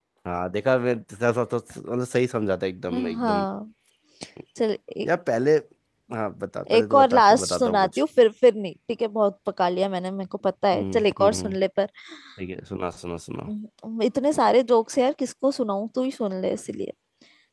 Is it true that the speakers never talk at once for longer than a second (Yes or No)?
No